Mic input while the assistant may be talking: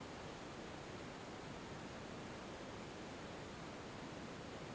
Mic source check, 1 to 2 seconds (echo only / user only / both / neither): neither